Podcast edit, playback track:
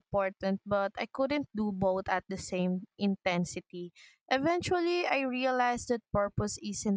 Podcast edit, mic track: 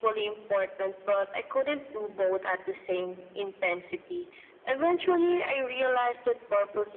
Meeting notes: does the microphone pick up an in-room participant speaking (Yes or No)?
No